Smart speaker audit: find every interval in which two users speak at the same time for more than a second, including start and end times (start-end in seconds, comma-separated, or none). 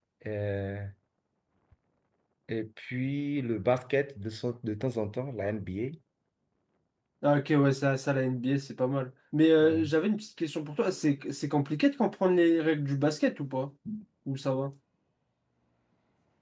none